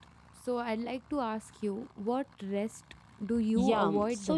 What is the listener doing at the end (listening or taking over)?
taking over